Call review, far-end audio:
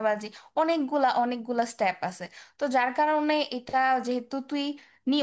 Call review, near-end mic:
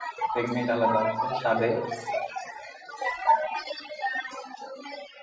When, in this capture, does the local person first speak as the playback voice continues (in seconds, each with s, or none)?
0.3 s